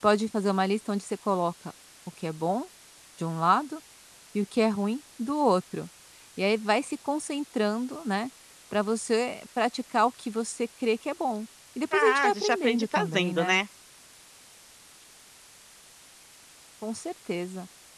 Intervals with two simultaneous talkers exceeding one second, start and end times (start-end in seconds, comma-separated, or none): 11.9-13.6